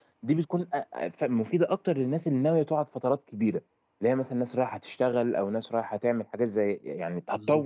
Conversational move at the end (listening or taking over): listening